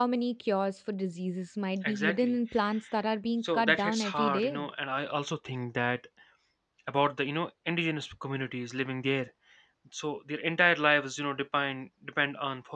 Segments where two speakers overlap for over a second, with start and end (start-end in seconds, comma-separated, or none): 3.4-4.7